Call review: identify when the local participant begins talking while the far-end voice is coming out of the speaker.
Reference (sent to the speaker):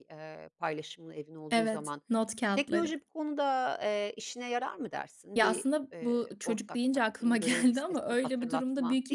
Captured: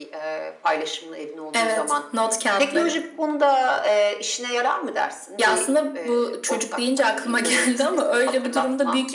none

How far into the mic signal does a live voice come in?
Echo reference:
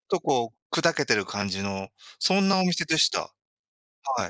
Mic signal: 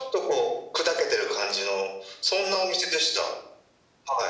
none

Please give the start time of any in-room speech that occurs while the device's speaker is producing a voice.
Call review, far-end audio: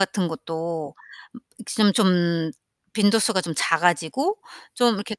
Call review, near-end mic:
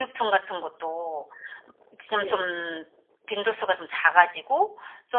2 s

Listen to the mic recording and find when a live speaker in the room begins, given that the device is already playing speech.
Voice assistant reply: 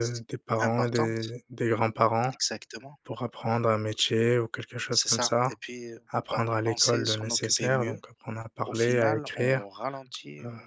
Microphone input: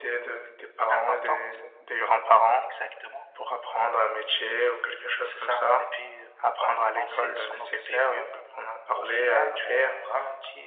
none

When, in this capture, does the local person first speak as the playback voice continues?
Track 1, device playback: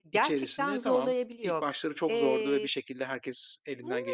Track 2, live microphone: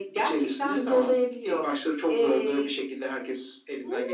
none

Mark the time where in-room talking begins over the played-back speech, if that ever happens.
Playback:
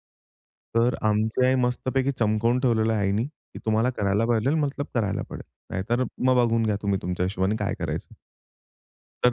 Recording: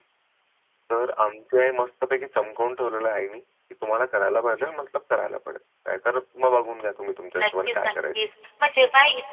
7 s

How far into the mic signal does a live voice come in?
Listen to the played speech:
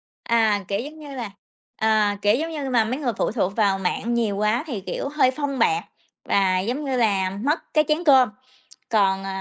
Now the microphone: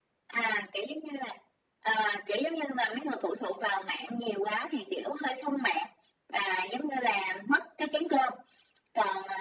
none

